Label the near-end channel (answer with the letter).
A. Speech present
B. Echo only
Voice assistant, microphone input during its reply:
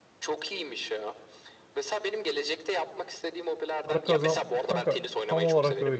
A